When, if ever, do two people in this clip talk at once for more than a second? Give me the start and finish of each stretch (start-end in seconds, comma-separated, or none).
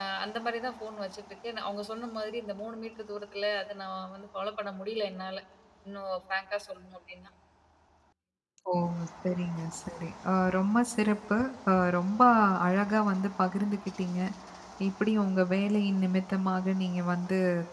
none